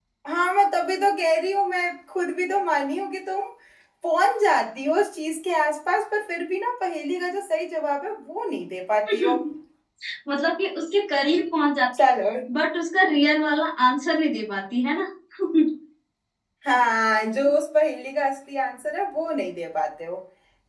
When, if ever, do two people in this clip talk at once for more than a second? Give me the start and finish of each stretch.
none

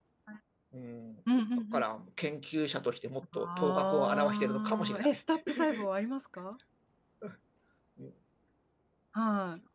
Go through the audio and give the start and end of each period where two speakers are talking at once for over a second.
3.3-5.1

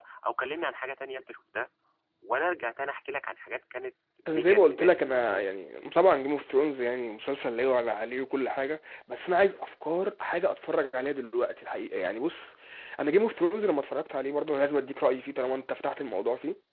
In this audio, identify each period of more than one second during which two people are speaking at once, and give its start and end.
4.3-5.5

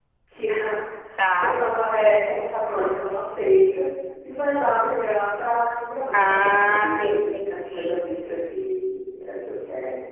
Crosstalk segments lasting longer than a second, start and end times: 6.1-8.0

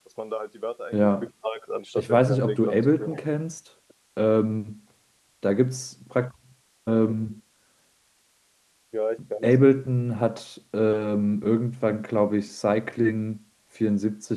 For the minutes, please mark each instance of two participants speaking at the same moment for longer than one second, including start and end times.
2.0-3.2

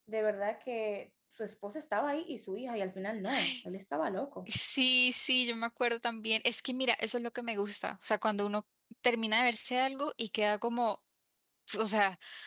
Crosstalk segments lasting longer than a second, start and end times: none

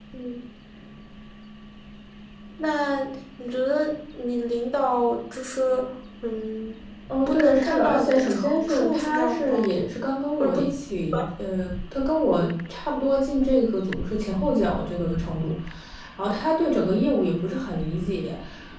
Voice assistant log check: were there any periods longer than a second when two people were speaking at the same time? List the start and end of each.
7.3-9.7

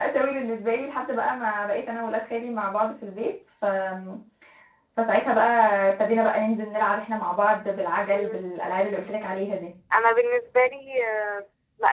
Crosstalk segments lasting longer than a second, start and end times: none

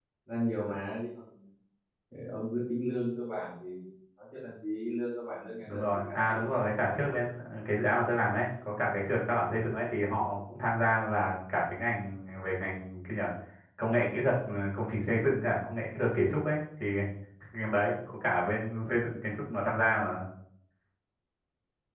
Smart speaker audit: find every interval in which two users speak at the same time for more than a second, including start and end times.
5.6-6.9

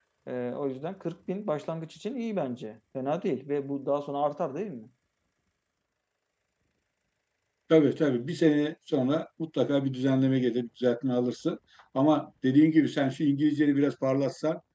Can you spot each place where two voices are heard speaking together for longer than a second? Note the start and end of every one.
none

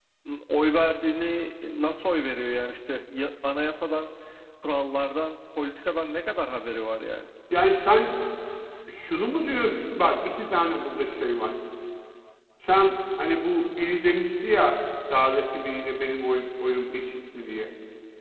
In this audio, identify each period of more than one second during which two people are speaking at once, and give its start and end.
none

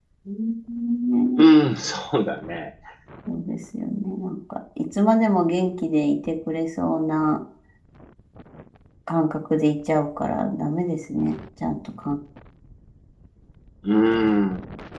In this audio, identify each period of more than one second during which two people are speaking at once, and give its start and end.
none

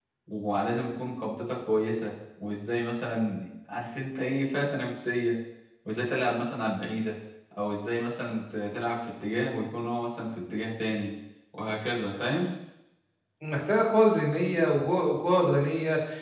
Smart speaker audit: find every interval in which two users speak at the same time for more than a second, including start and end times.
none

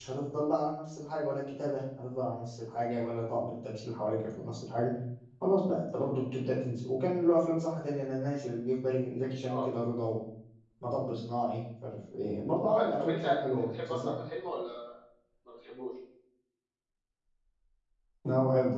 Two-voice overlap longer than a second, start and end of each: 12.7-14.1

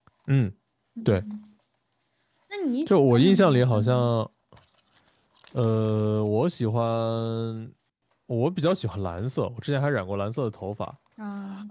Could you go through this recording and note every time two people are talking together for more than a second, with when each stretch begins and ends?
2.9-4.1

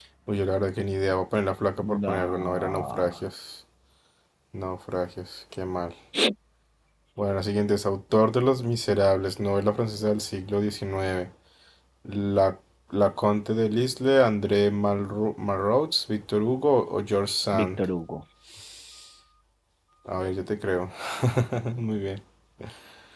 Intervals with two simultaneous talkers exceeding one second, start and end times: 1.8-3.1

